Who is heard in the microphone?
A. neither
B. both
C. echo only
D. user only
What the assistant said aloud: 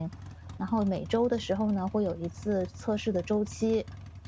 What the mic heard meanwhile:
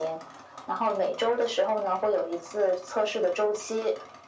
C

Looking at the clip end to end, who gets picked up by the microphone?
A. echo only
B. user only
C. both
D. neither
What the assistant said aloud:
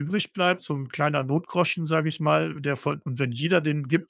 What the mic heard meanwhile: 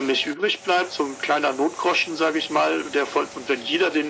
A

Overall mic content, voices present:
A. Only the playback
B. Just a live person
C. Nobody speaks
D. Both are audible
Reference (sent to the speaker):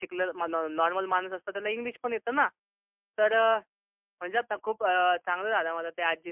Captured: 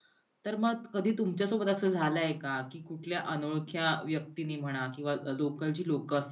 B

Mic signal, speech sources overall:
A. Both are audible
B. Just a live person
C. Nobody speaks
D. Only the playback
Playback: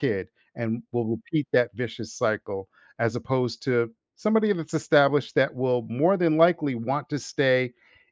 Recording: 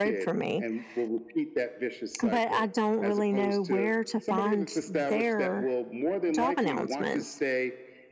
A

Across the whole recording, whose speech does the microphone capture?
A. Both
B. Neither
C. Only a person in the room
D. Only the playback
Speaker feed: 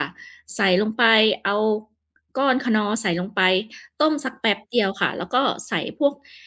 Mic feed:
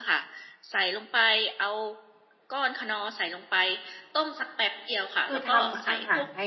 A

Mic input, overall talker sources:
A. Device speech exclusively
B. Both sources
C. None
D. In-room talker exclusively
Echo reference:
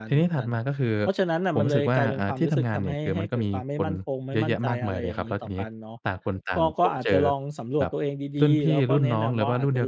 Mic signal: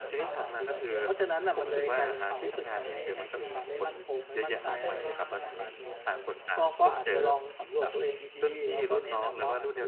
B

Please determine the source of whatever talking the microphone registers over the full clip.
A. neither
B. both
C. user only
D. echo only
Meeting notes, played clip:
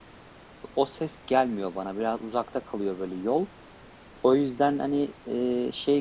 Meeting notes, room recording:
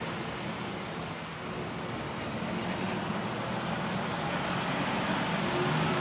A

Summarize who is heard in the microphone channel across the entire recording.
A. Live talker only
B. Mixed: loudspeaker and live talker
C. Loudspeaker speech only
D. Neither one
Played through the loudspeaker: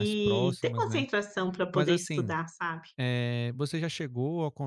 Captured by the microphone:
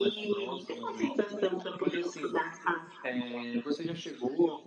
C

